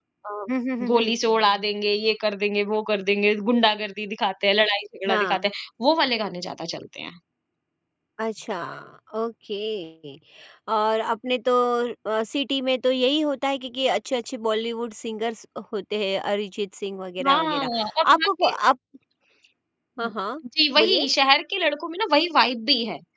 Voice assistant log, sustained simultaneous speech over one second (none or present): none